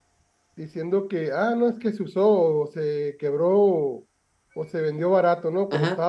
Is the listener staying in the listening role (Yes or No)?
No